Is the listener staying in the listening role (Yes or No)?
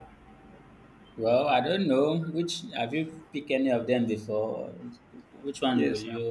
No